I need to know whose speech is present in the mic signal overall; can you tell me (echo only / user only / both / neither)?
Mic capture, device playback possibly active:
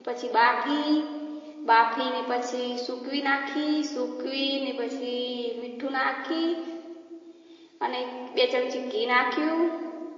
user only